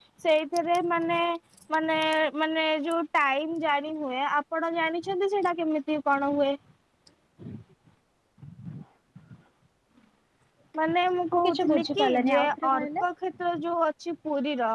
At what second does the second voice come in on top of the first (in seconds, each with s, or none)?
11.3 s